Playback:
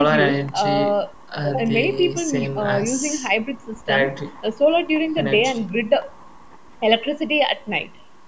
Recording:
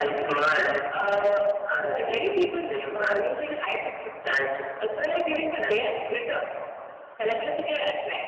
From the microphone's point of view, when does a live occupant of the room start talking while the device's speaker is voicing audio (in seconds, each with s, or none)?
none